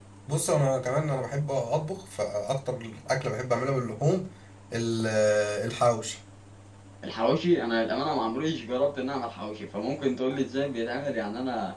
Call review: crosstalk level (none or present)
none